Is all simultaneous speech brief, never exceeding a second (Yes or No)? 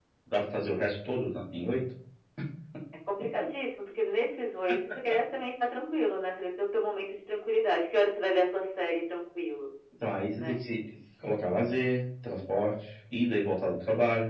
Yes